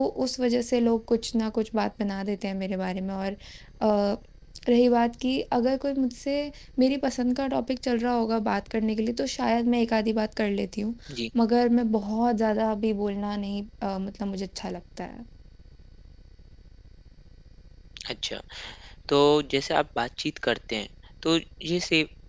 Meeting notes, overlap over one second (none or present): none